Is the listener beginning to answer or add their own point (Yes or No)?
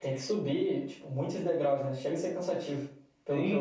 Yes